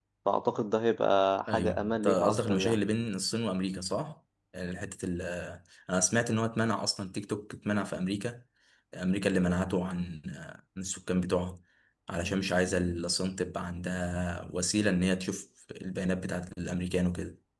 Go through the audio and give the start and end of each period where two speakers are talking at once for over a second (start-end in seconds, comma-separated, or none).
1.5-2.8